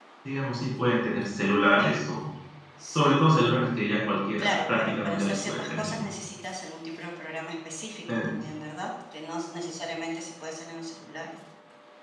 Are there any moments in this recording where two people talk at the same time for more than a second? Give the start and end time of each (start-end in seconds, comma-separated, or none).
4.4-6.1